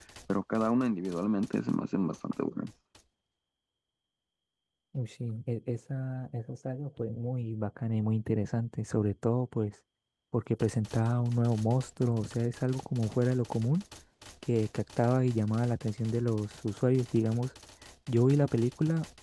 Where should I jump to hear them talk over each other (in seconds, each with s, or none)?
none